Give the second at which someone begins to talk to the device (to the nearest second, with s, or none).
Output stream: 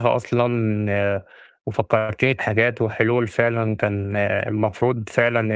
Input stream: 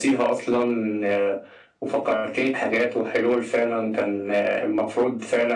none